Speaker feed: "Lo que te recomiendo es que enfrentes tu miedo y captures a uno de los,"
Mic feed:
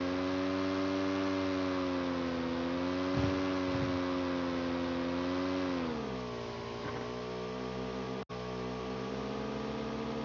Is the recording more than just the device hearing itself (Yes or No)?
No